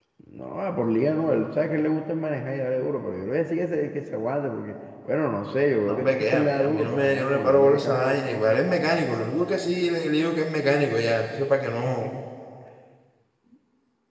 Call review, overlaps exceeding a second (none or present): present